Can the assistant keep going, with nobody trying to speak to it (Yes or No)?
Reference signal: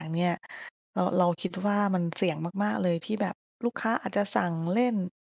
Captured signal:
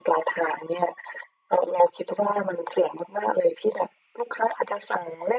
Yes